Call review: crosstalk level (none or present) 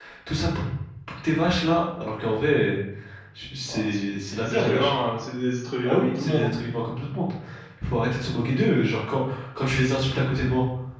present